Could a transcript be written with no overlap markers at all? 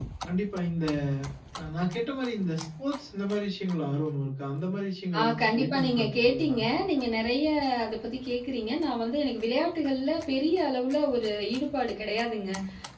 No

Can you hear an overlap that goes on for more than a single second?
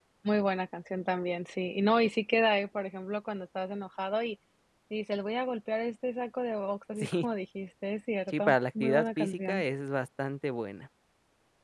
Yes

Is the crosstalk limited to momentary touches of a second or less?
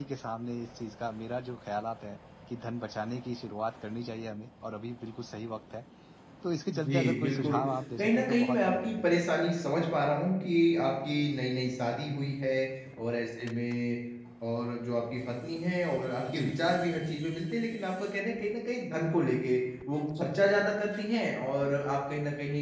No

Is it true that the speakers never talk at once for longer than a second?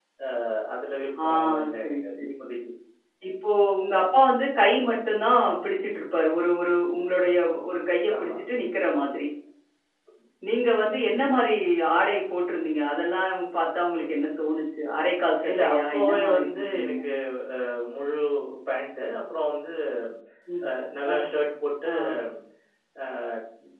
No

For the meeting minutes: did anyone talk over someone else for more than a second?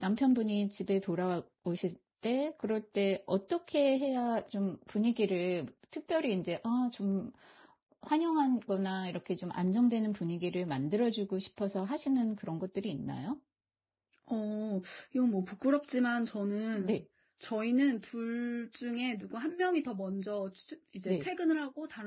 No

